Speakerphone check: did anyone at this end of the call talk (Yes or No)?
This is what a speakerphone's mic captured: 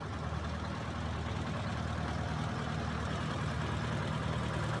No